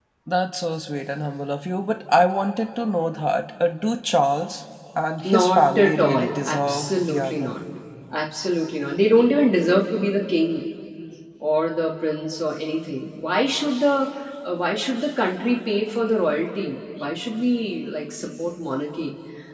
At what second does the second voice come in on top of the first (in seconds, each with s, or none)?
5.2 s